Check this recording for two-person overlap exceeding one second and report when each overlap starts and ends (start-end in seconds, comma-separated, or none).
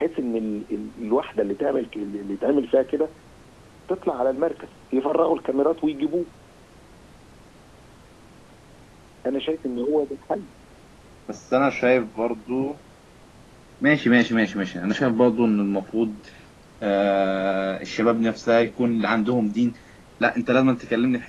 none